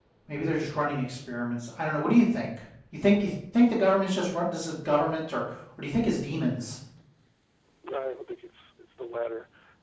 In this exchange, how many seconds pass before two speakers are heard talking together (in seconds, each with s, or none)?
none